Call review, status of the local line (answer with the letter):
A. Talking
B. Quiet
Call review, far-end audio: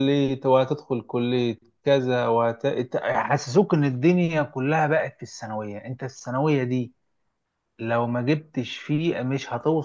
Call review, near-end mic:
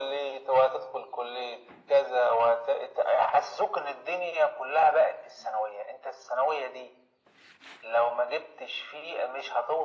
B